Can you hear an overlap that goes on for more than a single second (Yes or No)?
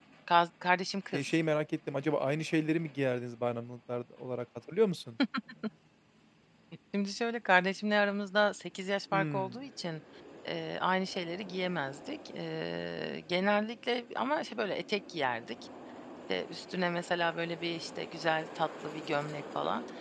No